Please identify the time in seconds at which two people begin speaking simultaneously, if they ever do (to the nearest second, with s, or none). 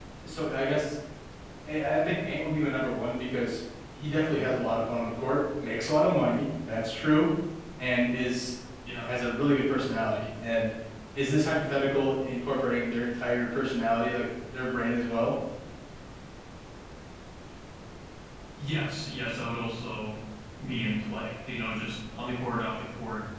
none